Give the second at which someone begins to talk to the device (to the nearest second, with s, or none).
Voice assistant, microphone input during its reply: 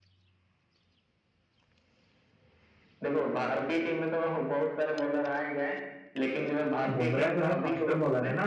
7 s